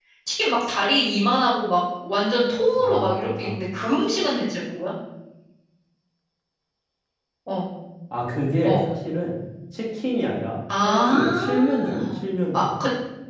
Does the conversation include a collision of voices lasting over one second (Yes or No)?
Yes